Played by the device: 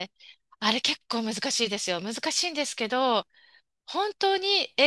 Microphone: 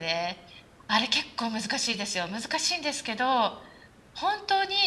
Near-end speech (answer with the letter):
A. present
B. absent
B